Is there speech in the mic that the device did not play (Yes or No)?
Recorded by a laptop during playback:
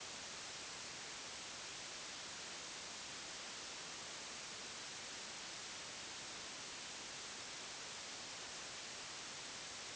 No